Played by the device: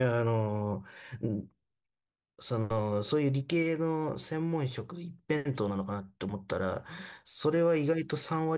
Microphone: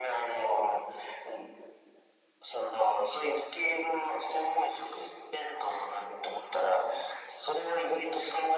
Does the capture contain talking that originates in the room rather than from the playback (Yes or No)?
No